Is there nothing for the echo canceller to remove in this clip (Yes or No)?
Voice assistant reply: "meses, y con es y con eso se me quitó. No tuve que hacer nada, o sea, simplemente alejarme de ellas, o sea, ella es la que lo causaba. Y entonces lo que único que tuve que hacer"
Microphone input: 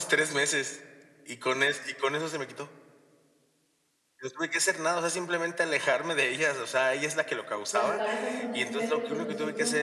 No